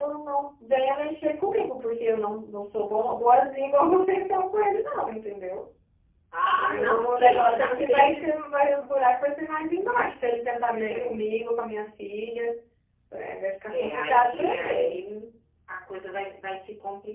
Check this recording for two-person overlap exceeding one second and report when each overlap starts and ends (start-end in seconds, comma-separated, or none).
6.5-8.2, 13.7-15.0